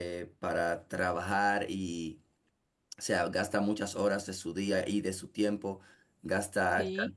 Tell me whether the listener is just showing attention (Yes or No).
Yes